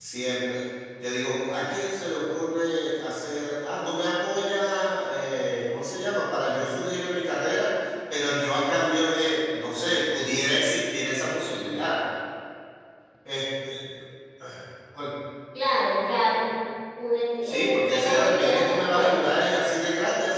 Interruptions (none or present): present